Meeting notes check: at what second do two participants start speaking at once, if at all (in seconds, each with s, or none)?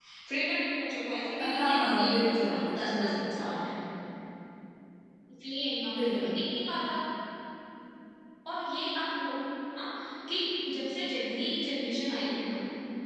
1.4 s